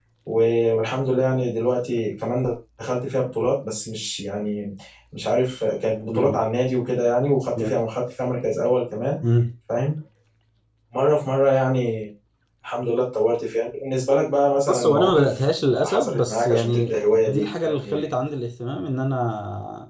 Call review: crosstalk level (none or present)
present